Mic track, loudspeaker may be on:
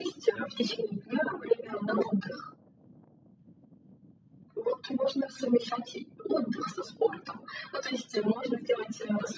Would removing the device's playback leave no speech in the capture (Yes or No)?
Yes